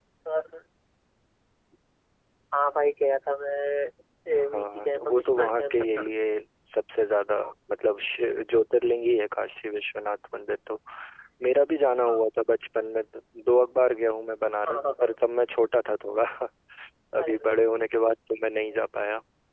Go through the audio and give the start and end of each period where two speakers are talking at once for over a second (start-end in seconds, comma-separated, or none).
4.3-6.1